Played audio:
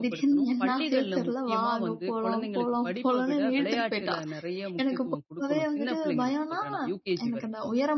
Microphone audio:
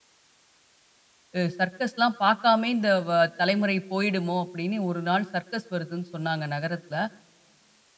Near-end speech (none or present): present